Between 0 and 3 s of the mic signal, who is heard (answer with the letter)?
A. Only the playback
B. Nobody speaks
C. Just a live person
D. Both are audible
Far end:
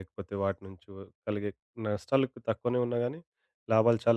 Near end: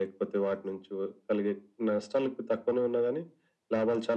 A